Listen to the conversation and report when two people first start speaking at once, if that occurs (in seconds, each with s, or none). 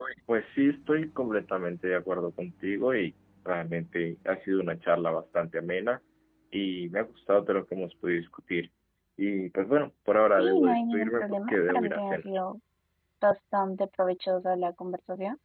10.4 s